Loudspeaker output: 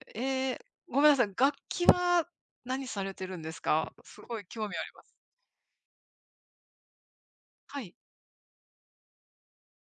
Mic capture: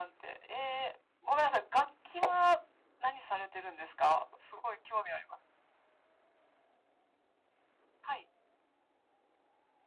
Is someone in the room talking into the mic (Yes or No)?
No